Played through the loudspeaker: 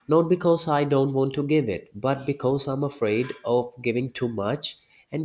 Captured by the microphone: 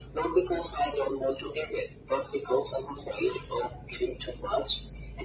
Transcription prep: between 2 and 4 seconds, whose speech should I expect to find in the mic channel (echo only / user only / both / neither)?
echo only